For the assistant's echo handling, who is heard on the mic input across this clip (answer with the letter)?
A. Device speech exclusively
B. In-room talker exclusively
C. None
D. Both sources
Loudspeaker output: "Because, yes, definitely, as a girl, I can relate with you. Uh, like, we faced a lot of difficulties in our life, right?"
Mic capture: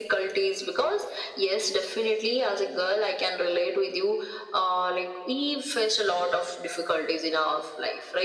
A